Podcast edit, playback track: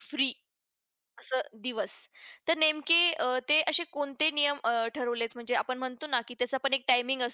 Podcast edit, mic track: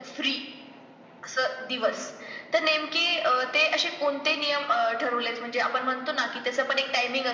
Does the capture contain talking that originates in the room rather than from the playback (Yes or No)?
No